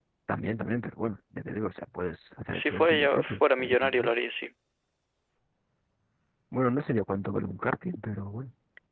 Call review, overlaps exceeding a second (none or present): present